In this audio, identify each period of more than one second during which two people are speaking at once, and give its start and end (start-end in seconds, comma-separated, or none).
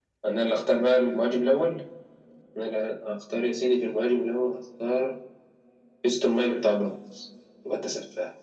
none